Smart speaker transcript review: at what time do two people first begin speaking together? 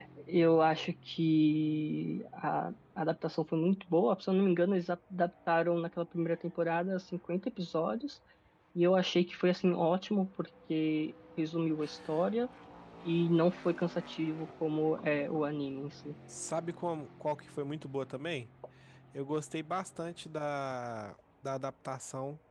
none

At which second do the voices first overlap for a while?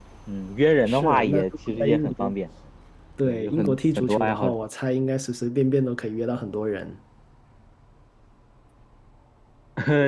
0.9 s

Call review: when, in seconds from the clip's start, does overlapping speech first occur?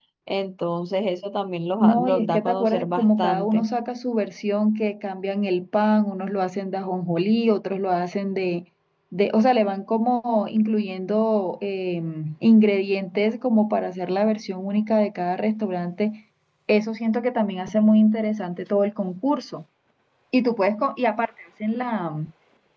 1.8 s

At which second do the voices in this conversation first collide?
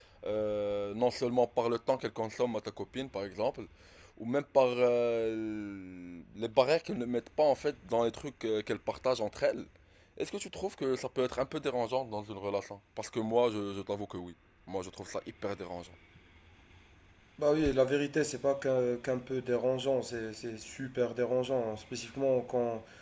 none

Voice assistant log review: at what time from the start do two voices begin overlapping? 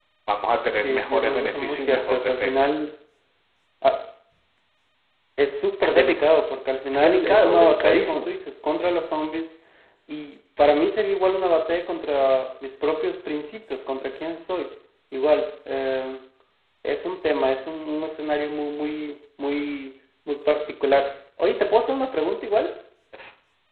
0.8 s

